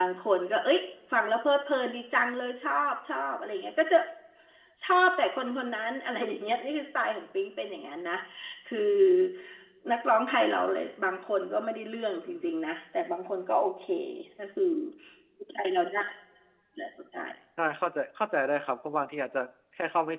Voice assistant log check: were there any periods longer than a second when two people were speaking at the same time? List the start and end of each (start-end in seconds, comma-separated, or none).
none